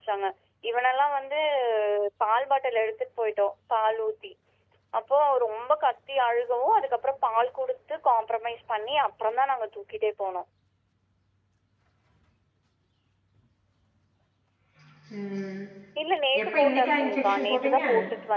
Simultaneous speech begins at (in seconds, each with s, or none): 16.4 s